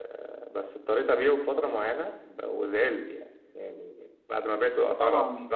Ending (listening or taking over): listening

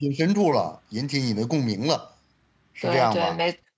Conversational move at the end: taking over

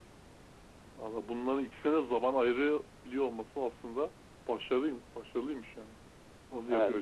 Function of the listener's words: taking over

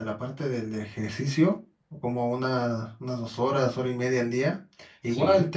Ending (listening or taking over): listening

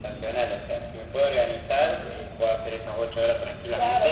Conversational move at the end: taking over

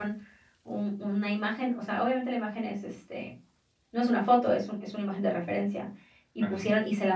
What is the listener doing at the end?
listening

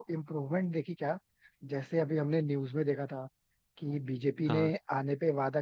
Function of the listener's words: listening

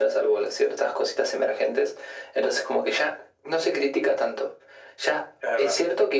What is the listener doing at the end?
listening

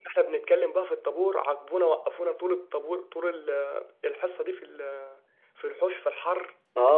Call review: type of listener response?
taking over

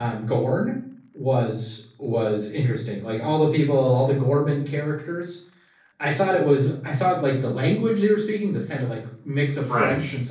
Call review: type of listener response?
listening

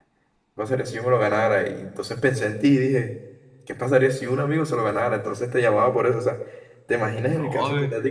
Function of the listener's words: listening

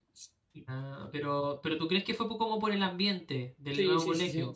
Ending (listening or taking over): taking over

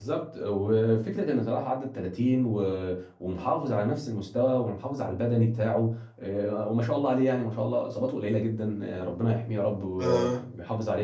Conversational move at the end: listening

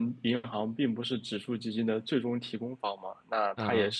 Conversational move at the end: listening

